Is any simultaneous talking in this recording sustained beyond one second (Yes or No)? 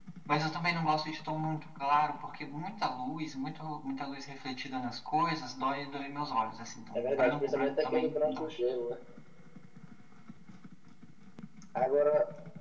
Yes